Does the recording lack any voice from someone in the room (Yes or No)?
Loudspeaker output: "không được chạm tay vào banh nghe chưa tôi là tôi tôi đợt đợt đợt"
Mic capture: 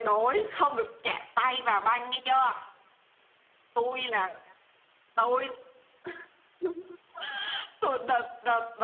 Yes